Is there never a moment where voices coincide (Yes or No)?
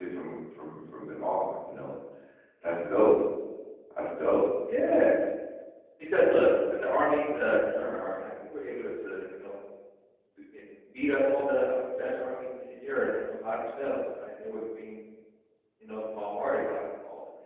Yes